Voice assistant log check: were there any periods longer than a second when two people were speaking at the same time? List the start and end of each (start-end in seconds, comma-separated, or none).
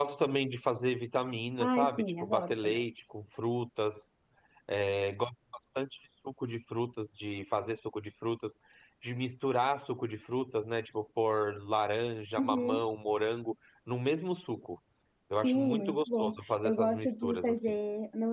1.6-2.8, 15.4-17.7